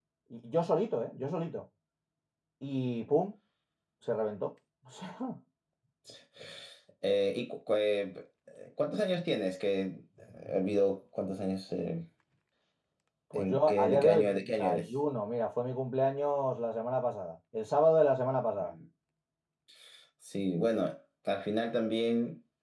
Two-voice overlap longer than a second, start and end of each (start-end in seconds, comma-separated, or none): 13.3-14.9